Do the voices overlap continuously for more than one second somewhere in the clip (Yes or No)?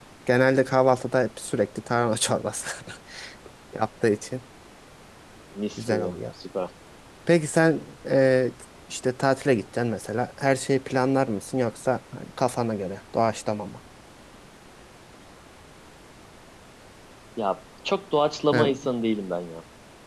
No